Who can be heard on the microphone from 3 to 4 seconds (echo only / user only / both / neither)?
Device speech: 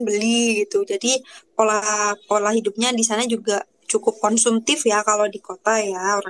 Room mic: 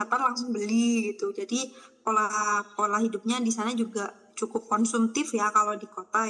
echo only